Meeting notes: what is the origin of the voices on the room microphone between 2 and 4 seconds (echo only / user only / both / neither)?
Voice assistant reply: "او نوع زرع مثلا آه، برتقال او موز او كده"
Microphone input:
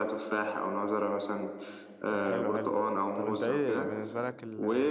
both